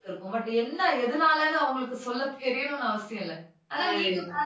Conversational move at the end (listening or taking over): listening